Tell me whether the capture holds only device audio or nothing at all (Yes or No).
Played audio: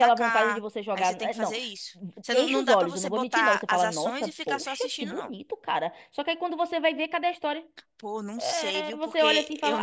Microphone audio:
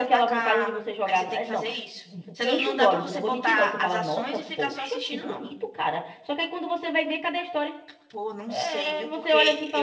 Yes